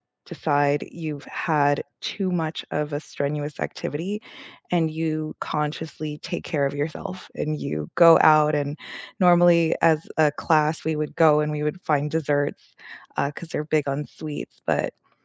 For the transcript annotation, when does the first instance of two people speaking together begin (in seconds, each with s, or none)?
none